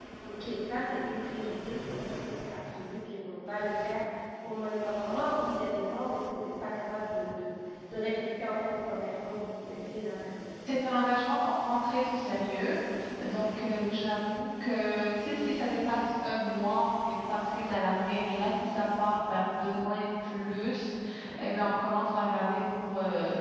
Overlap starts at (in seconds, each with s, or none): none